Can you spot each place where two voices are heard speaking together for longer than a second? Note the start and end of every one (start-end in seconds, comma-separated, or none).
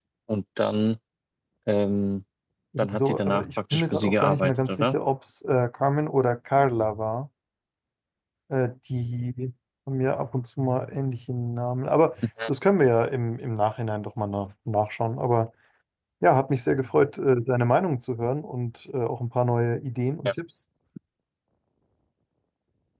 2.9-5.0